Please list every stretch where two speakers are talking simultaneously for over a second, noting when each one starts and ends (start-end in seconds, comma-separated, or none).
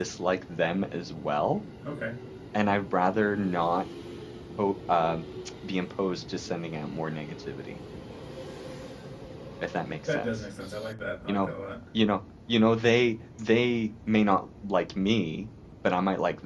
none